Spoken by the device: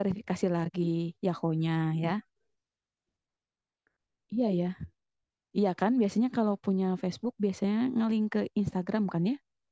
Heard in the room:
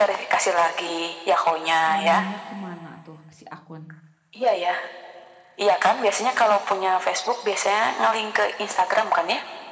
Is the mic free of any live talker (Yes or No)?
No